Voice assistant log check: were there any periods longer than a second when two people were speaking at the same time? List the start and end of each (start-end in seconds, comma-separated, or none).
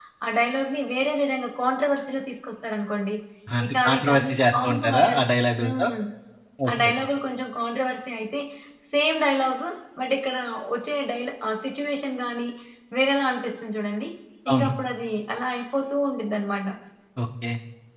3.7-5.2